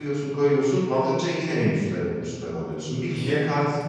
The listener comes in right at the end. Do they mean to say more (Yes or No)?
No